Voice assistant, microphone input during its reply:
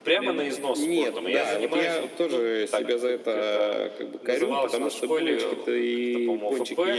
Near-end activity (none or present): present